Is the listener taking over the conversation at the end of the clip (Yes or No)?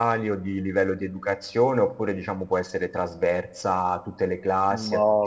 Yes